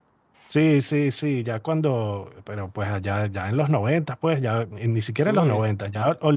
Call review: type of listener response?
listening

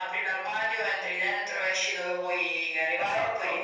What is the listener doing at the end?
taking over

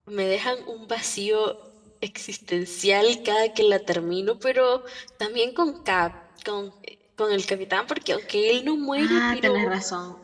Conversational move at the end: taking over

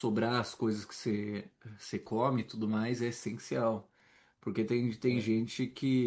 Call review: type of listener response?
listening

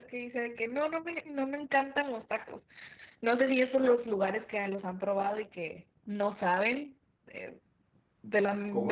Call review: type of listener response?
listening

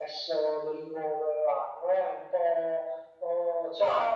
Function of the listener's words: listening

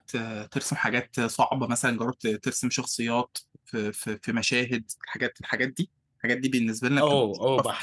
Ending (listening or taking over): taking over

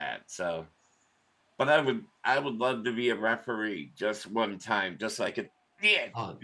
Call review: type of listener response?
taking over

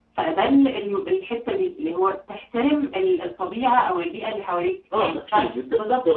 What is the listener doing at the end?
taking over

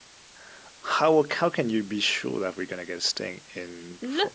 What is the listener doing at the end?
taking over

